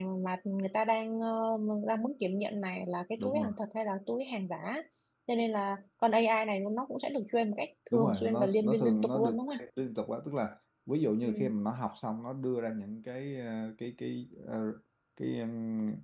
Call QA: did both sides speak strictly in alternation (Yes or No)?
No